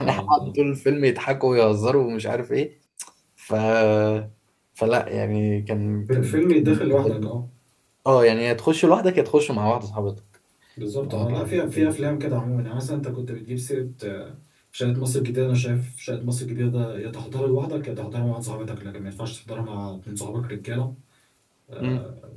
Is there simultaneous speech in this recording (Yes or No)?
Yes